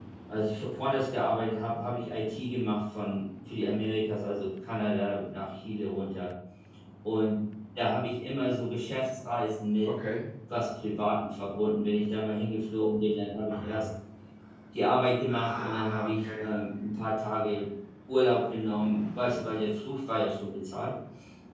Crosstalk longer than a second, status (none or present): present